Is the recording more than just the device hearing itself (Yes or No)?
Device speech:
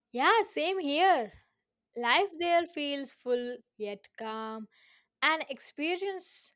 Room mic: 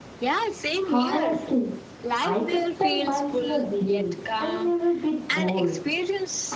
Yes